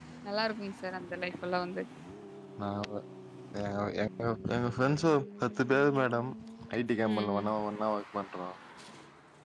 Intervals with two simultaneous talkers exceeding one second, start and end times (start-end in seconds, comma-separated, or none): none